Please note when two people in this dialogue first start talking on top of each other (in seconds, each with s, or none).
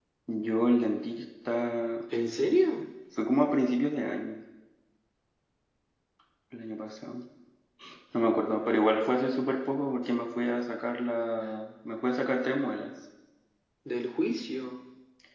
none